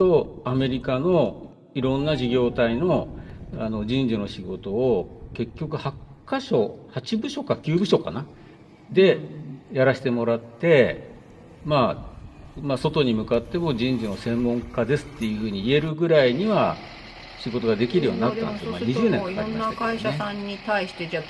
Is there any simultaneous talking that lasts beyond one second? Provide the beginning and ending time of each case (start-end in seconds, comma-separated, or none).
17.9-20.2